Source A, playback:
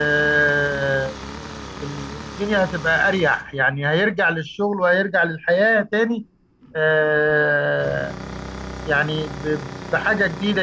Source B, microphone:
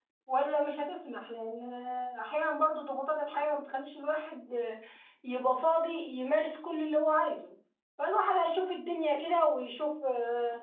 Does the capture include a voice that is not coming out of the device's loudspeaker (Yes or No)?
Yes